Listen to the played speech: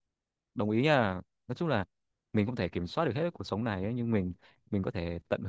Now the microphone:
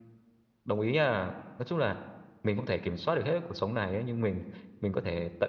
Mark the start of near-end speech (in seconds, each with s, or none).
none